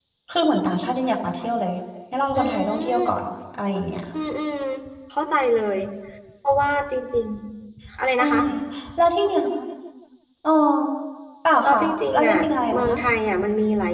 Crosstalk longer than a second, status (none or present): present